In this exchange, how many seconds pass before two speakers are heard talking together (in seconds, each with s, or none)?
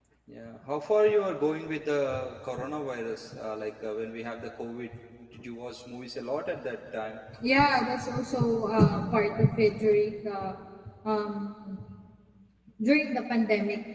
none